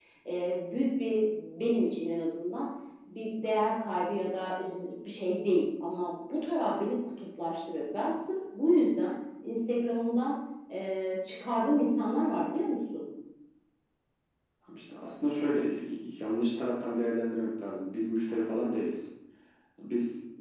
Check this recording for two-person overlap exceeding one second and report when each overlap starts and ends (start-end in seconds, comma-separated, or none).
none